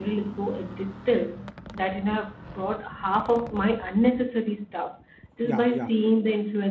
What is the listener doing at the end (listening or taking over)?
listening